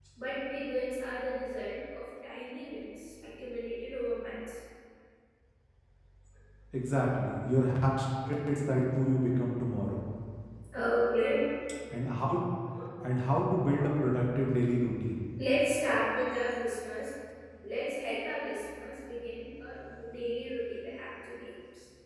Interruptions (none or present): none